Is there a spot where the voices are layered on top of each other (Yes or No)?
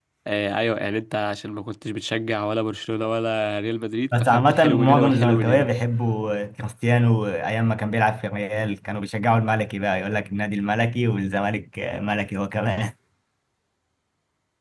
Yes